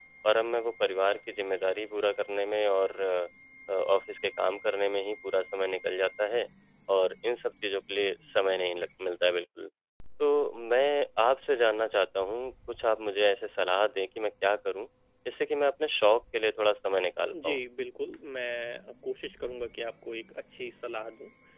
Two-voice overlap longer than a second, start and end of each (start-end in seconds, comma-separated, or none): none